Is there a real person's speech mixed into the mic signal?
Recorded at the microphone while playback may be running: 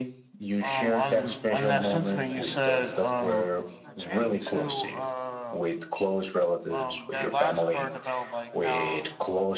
Yes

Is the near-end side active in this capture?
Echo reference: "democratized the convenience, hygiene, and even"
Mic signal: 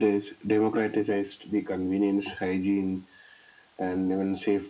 No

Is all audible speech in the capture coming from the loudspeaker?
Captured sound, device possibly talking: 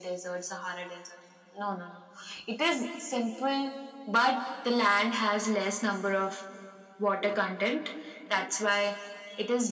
Yes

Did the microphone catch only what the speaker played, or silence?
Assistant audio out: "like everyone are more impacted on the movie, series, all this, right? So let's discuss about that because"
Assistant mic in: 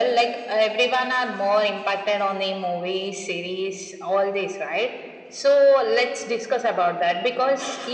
Yes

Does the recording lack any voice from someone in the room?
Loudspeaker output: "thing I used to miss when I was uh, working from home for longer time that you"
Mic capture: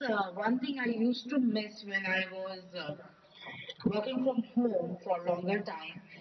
Yes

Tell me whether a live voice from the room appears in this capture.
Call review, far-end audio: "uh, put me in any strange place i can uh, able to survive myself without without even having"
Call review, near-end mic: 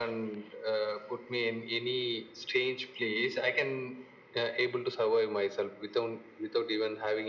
No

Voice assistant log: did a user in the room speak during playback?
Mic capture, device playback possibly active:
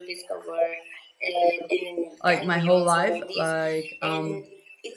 Yes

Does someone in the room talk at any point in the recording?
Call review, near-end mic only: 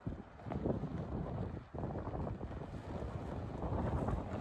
No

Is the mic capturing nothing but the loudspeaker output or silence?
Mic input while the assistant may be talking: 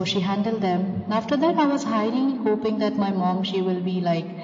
Yes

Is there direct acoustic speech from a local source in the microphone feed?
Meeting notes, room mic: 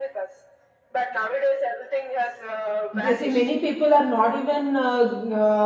Yes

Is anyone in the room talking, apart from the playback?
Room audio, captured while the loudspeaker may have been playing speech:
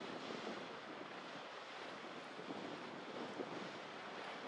No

